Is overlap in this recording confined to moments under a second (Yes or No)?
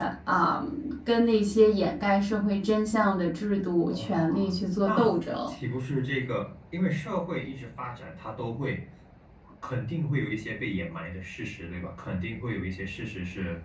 No